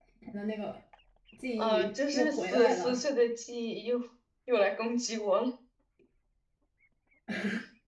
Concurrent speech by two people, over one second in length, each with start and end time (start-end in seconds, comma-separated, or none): 1.6-3.0